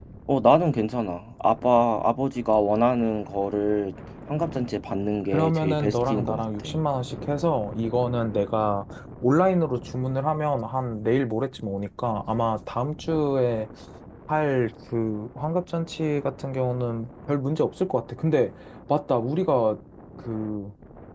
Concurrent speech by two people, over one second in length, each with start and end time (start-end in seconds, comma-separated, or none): 5.3-6.7